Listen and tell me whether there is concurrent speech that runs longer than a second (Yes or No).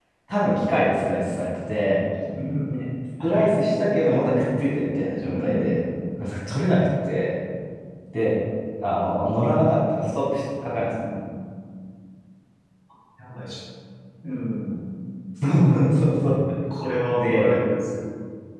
No